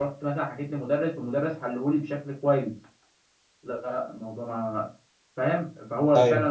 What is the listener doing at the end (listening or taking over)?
listening